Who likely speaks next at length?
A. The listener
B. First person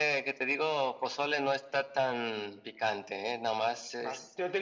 A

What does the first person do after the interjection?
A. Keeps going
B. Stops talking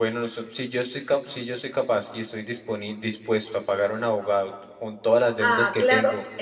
B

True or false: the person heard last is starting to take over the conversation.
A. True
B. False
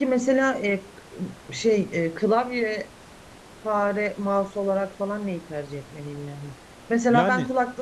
B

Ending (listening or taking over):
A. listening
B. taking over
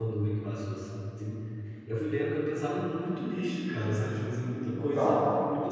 A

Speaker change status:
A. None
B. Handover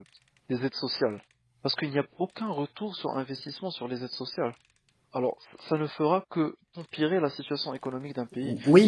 B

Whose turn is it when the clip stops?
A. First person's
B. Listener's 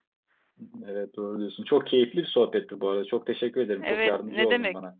B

